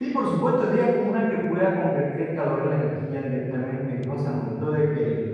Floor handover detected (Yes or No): No